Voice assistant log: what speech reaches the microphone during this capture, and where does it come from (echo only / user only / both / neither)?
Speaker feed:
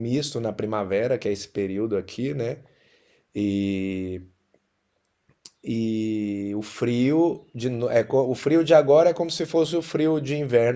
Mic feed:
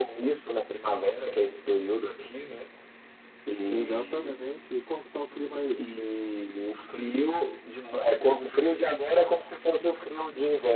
both